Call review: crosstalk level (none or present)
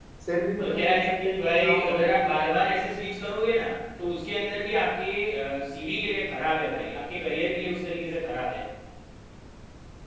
present